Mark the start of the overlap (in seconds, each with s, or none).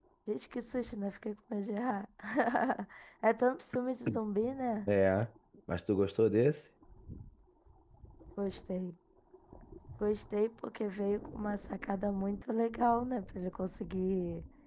none